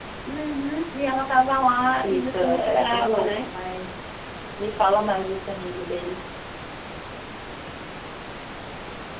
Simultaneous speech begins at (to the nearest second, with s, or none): 2 s